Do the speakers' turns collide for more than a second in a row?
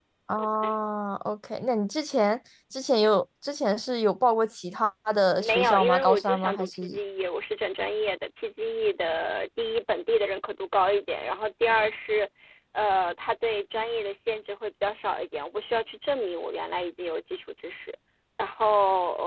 Yes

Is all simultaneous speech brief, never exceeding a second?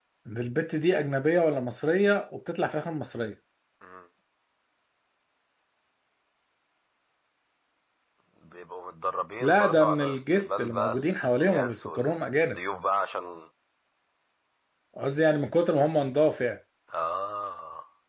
No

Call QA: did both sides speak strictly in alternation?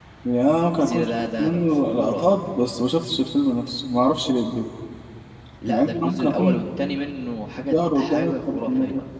No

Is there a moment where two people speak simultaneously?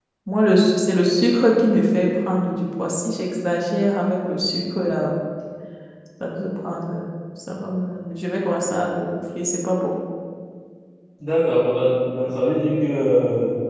No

